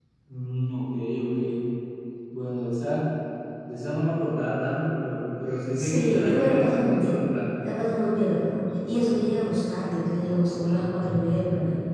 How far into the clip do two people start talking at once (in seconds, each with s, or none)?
5.8 s